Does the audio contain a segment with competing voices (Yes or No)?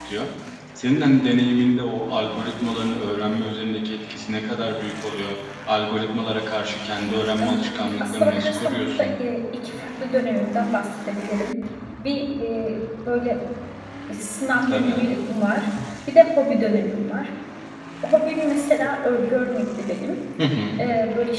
Yes